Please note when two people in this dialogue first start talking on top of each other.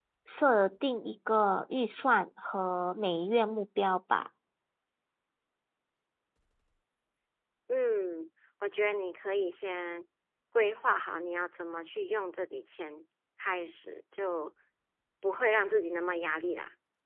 none

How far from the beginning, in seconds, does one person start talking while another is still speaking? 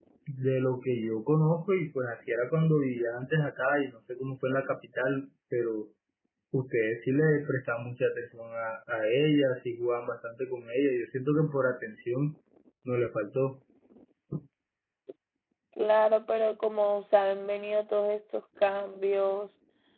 none

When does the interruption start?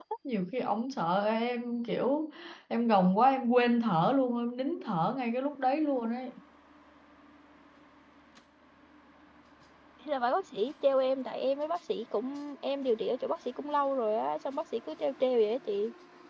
none

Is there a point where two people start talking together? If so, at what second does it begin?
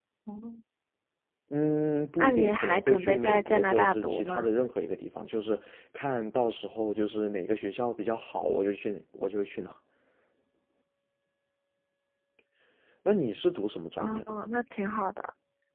2.2 s

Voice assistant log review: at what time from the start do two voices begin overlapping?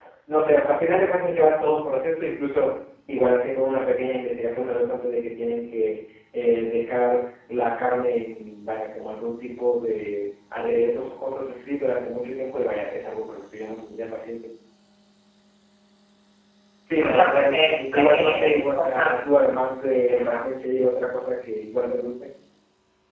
17.0 s

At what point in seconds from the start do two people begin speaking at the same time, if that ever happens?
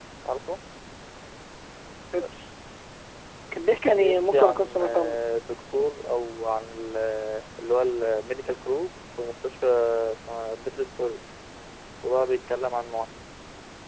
3.9 s

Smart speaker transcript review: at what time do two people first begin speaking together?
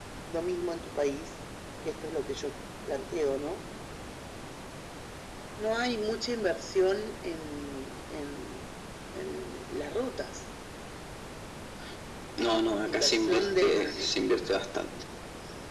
12.8 s

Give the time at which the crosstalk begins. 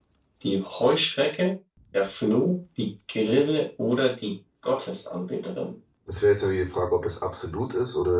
none

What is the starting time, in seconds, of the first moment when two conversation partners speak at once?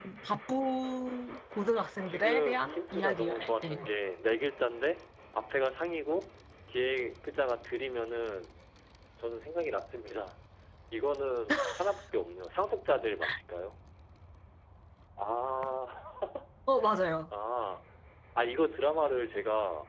2.1 s

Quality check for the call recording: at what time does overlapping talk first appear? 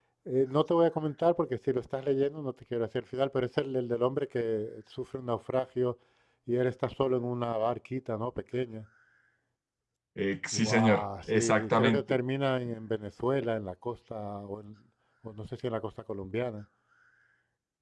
10.5 s

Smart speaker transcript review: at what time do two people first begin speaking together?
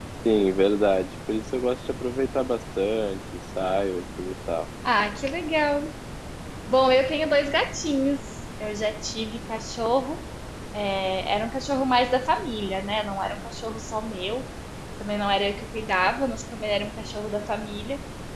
none

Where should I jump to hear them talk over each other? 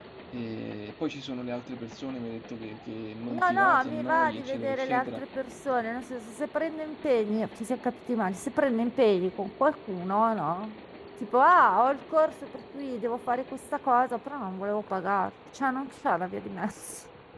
3.3 s

